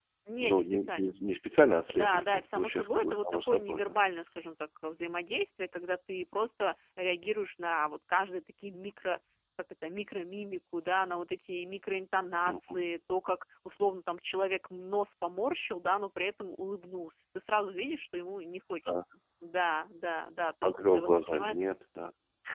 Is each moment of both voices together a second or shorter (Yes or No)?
No